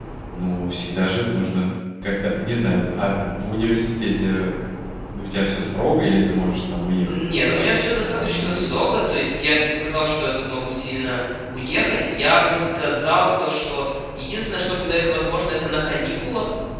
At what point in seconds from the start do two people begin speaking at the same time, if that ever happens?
7.0 s

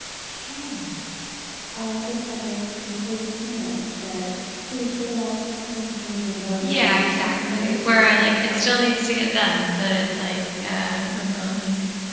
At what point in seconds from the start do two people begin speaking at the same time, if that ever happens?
6.6 s

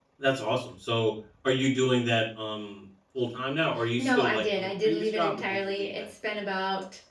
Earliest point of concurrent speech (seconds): 3.8 s

